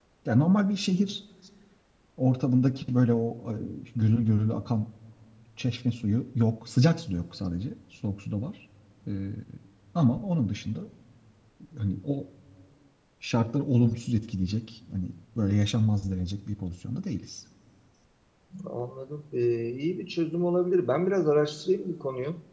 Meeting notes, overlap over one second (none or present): none